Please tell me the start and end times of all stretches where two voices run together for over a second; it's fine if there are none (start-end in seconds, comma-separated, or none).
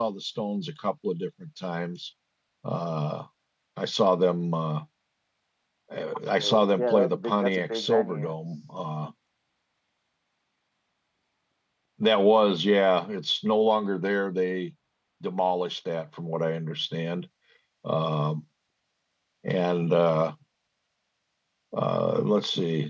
6.4-8.3